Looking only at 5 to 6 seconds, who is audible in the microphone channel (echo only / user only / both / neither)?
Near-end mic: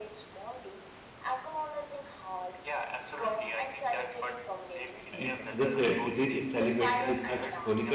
both